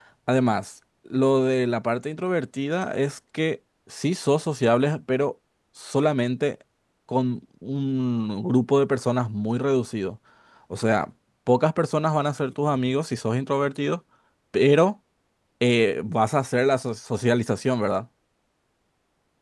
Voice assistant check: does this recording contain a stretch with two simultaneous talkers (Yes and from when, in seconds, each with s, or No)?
No